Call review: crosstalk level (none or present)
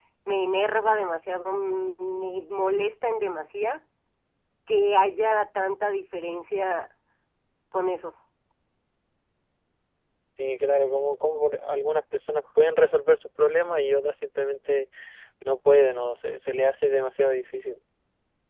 none